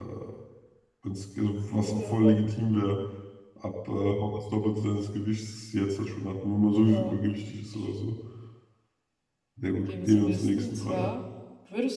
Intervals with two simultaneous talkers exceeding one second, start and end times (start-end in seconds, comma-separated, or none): 9.9-11.1